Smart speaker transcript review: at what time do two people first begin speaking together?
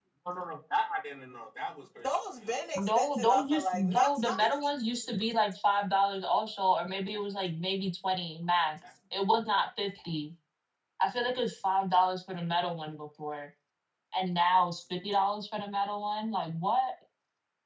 3 s

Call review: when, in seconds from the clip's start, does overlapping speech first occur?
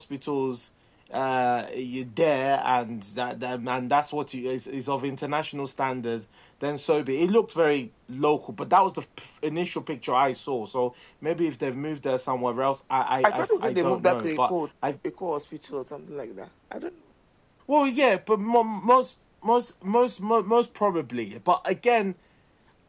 13 s

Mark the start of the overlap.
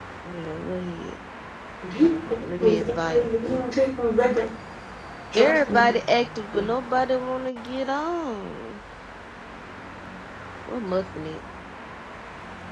2 s

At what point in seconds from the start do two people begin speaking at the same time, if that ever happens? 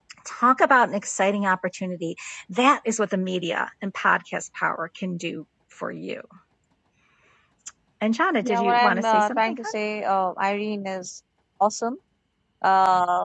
8 s

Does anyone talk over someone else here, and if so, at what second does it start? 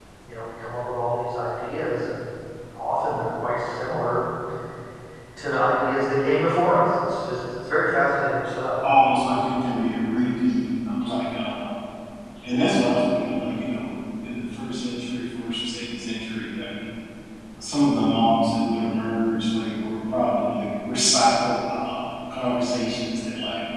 none

